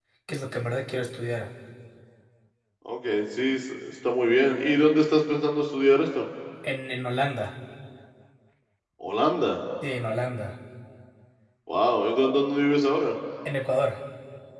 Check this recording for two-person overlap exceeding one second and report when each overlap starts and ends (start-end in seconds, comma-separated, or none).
none